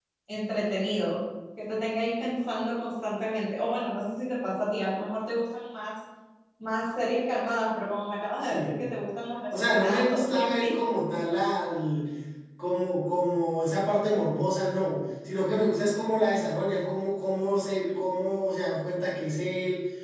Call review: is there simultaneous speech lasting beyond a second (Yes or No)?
Yes